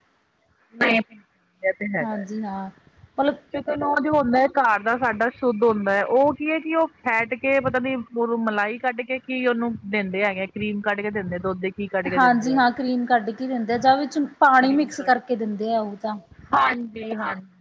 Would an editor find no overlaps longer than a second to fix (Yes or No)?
Yes